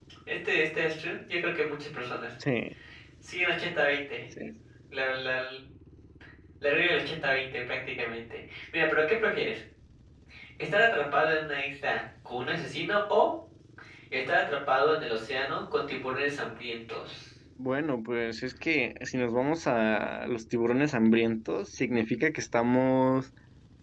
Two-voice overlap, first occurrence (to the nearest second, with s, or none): none